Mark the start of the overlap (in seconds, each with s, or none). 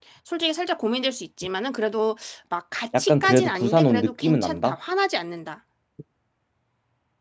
2.9 s